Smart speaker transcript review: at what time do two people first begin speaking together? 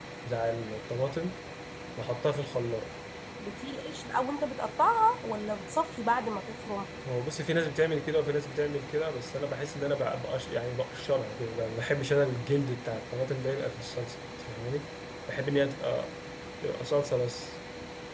none

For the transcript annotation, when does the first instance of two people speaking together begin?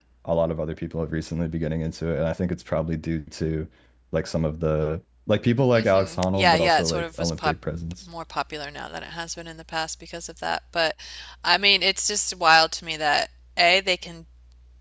5.8 s

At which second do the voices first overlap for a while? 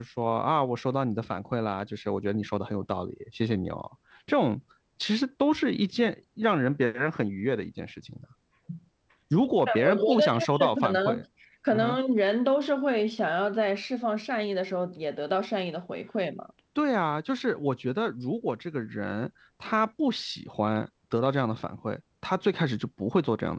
9.7 s

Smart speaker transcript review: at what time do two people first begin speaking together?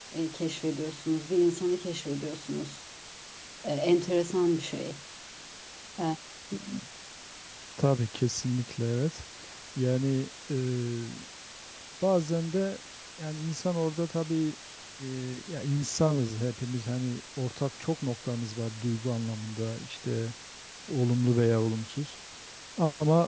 none

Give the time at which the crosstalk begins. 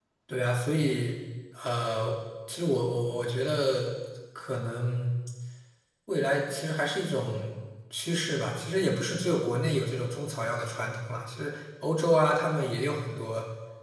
none

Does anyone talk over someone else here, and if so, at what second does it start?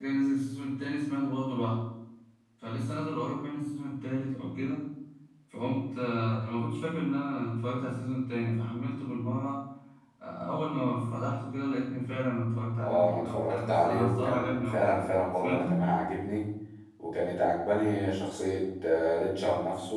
12.8 s

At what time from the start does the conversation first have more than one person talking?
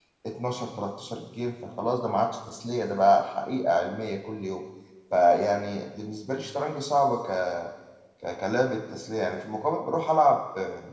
none

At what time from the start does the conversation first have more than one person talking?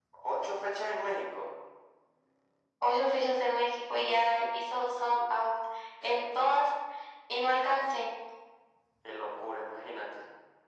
none

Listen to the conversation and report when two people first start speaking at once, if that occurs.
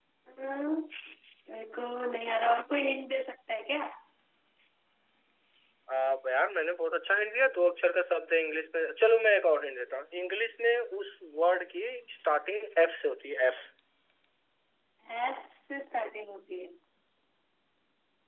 none

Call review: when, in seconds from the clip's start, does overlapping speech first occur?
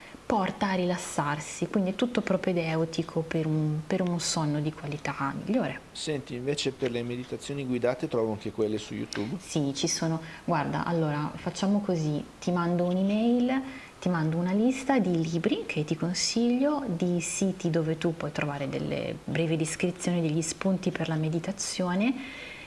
none

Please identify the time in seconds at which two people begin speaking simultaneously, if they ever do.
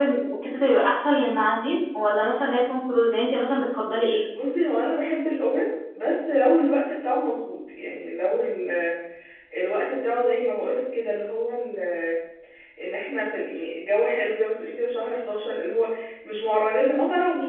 none

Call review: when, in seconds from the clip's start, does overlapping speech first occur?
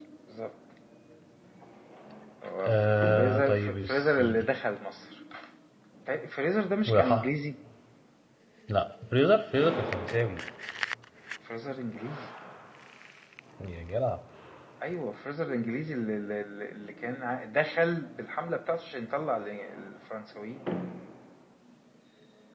3.1 s

